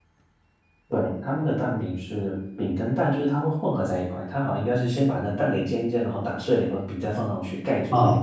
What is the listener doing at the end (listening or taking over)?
taking over